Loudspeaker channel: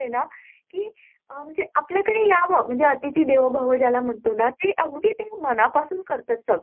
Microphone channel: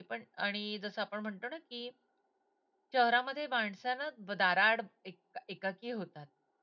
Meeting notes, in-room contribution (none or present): present